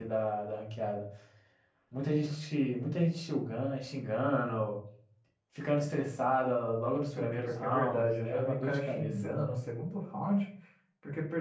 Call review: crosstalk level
present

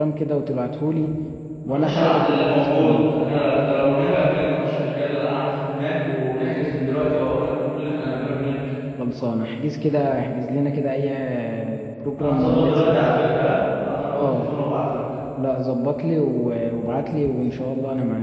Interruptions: present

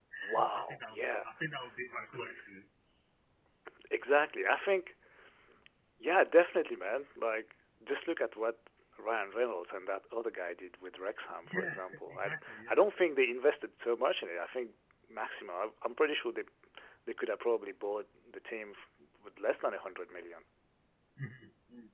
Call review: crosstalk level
present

